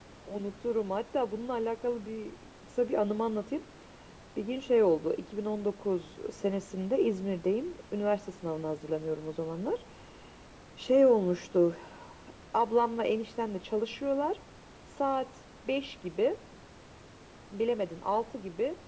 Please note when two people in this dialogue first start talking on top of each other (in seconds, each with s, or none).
none